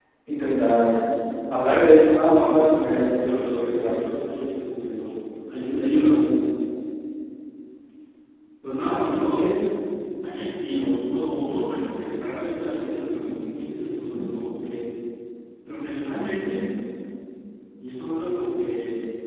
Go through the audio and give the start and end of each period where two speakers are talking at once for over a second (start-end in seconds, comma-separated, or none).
2.2-4.0